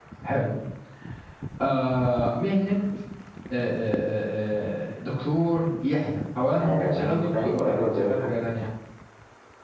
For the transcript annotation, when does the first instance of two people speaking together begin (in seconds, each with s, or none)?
6.5 s